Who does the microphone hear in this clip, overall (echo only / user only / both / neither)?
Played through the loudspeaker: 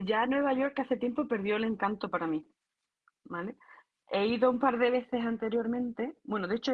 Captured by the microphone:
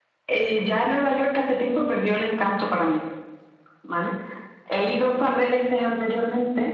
echo only